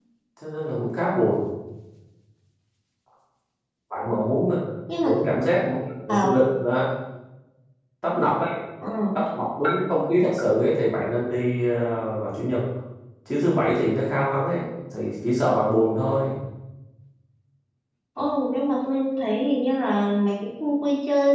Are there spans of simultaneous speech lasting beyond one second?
No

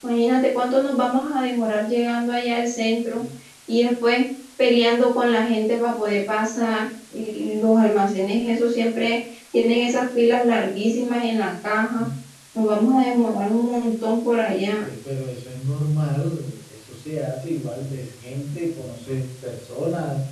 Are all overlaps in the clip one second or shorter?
Yes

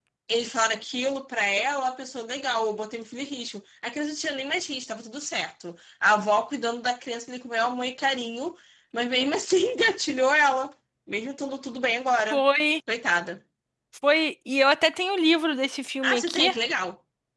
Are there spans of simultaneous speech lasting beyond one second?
No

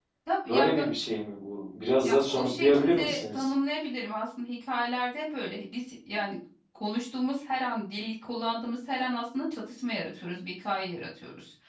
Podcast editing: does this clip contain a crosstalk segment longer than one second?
Yes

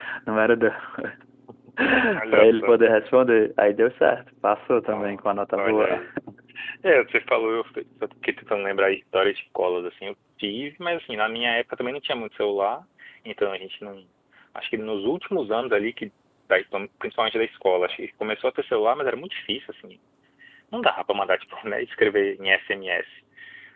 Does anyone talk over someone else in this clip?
Yes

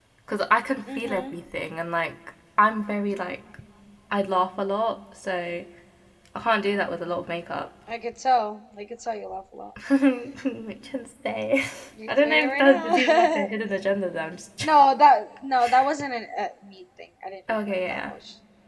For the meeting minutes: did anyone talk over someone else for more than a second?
Yes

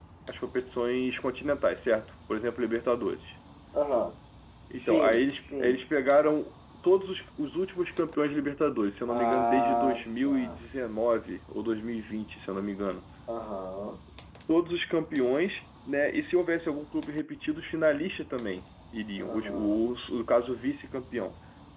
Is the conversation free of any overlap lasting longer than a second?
No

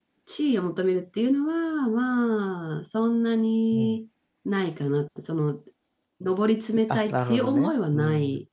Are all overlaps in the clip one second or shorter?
No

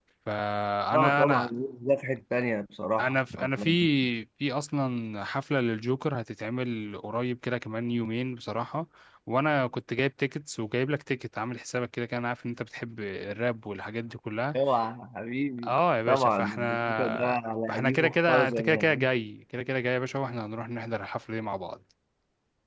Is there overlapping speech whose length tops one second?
Yes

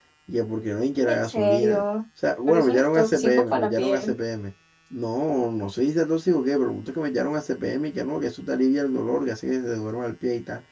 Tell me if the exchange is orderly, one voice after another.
No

